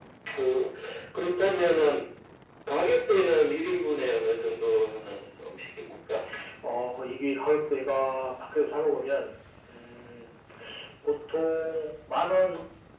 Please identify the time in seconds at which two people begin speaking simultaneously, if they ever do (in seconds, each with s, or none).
none